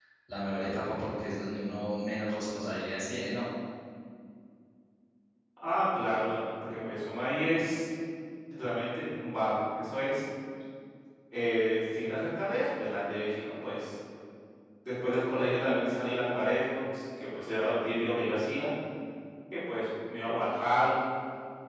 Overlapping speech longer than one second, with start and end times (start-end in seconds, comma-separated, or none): none